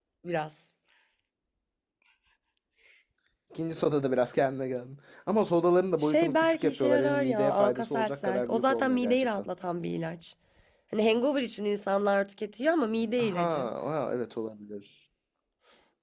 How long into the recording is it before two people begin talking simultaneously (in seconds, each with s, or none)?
6.0 s